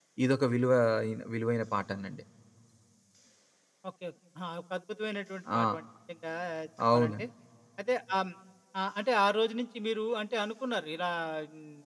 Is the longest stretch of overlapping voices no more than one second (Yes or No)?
Yes